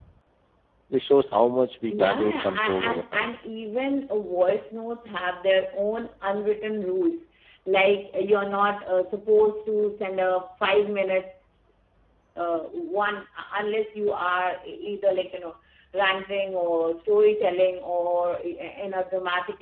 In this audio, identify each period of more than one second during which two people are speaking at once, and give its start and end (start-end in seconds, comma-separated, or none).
1.9-3.3